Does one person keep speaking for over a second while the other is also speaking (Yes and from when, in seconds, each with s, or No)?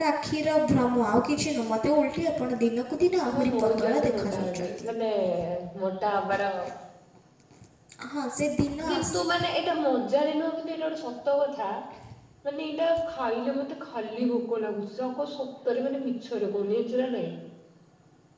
Yes, from 3.3 s